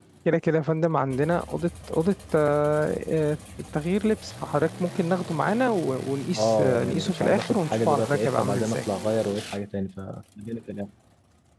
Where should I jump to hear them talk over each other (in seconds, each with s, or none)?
6.3 s